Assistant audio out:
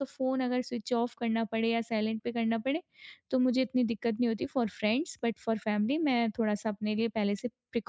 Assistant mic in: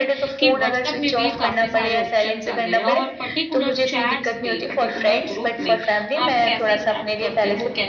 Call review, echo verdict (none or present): present